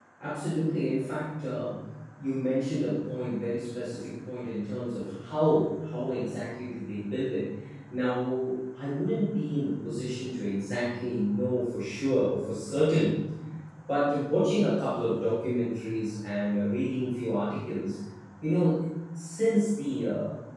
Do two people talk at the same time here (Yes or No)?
No